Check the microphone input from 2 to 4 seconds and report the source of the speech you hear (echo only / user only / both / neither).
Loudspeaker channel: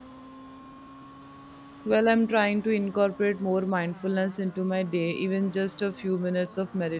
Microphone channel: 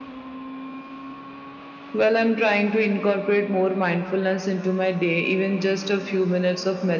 echo only